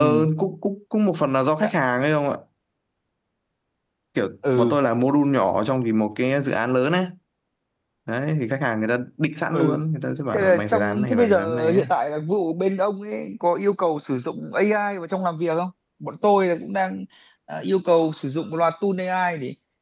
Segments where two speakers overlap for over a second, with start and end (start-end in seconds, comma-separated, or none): 10.3-11.9